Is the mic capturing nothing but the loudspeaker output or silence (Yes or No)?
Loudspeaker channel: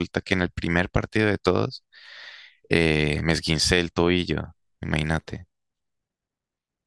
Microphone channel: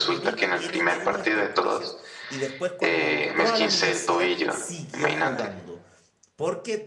No